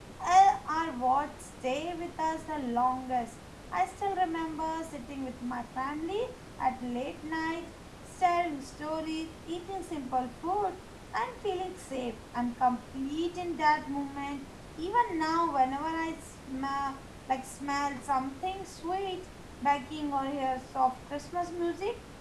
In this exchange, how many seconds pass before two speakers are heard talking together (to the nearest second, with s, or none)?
none